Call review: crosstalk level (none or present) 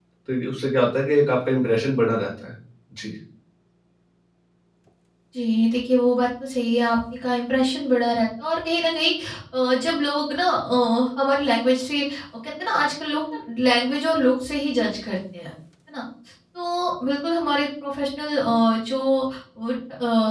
none